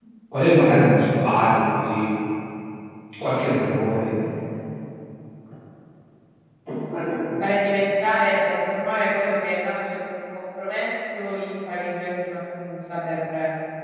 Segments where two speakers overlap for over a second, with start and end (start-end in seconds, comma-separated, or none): none